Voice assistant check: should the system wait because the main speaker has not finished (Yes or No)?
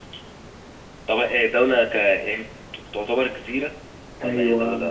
No